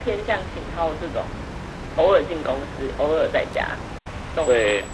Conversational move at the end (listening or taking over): taking over